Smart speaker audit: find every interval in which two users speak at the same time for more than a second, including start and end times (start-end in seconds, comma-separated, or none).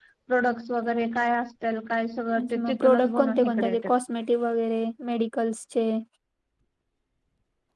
2.4-3.9